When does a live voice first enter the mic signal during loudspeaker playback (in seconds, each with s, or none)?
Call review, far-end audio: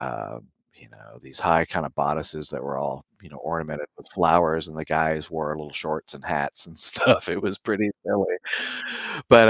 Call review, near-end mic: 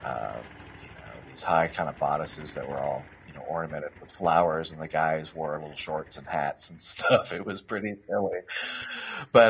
none